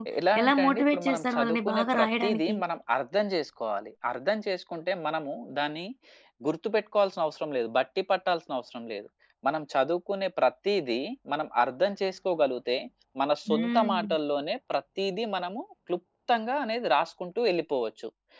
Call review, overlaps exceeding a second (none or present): present